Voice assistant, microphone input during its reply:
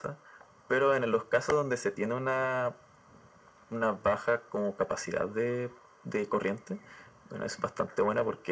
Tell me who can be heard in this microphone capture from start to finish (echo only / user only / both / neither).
echo only